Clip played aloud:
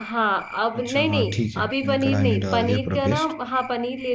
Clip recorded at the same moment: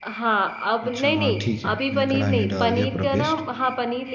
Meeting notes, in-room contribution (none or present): none